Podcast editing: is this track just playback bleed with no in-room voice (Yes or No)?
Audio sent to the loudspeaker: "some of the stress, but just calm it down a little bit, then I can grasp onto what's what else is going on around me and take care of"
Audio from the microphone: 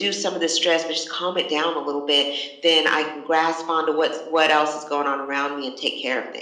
Yes